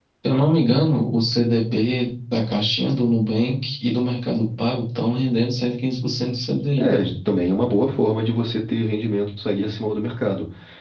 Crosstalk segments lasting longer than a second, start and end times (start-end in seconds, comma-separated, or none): none